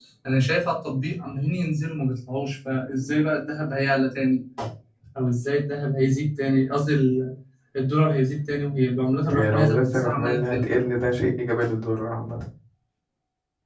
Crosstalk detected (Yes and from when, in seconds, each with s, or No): Yes, from 9.2 s